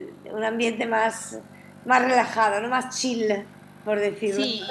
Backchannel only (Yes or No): No